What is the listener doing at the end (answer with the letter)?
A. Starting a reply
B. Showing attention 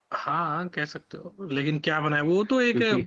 B